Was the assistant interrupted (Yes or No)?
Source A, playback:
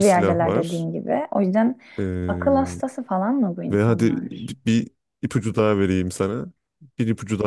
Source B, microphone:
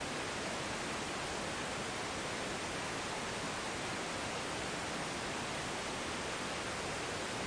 No